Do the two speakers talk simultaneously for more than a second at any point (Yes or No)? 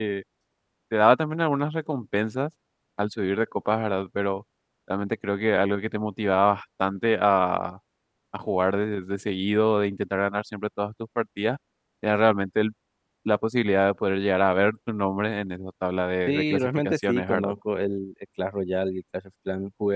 Yes